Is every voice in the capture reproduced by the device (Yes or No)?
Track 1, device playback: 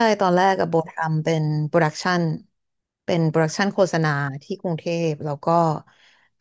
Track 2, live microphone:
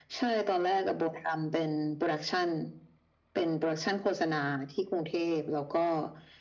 Yes